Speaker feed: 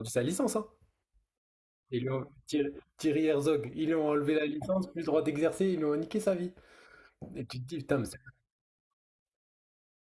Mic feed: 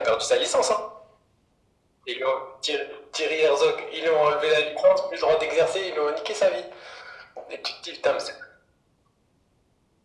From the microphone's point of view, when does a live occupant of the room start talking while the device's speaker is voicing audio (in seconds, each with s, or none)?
none